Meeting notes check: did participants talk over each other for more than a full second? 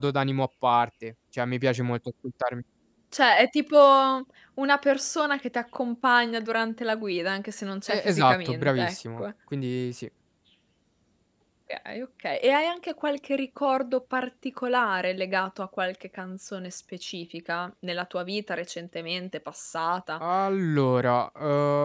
Yes, from 7.9 s

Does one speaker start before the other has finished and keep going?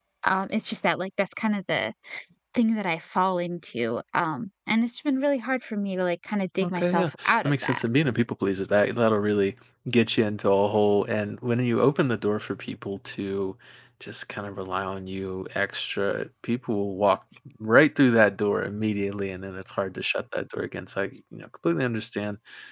Yes, from 6.6 s

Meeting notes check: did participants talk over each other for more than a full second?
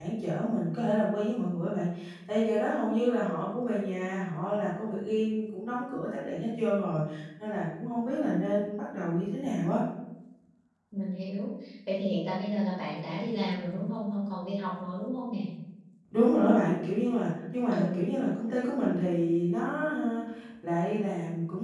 No

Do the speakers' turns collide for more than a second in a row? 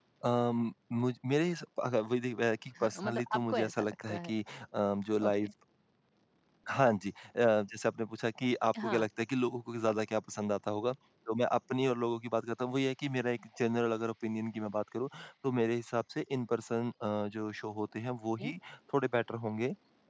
Yes, from 2.8 s

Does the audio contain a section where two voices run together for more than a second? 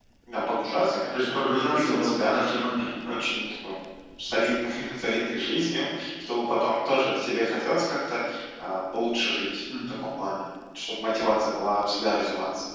Yes, from 1.1 s

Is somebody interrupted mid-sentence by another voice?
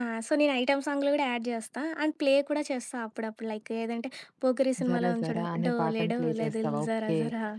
Yes, from 4.8 s

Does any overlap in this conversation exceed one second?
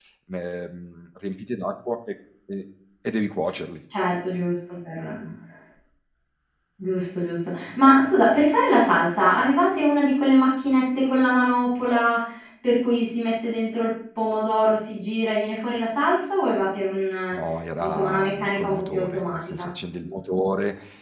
Yes, from 17.8 s

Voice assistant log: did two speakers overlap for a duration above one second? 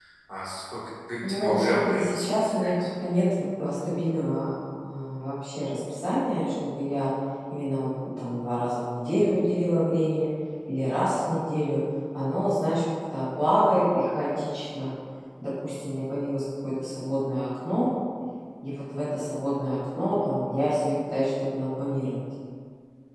Yes, from 1.3 s

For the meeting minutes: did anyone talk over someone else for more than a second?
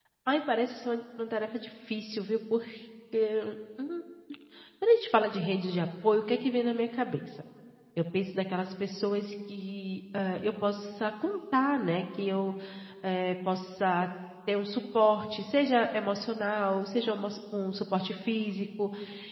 No

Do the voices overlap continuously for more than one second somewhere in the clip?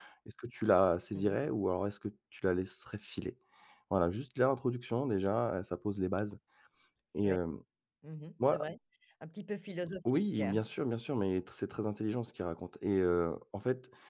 No

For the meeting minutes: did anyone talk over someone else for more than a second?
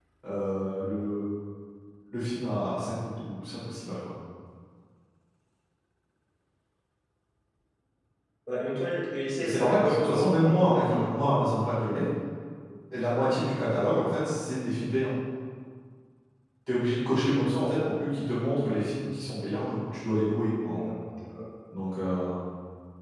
Yes, from 9.4 s

